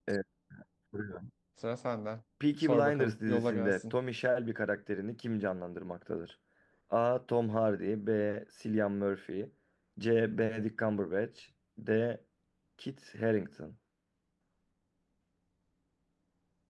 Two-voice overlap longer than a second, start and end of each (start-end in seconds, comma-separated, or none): 2.6-3.9